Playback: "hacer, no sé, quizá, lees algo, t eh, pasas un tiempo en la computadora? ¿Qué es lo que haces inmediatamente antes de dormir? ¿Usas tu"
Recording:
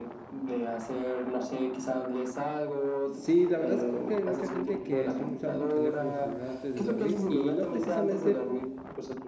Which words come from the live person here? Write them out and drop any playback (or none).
Sí, la verdad es que hay mucha gente que suele usar su teléfono celular antes de dormir, y no precisamente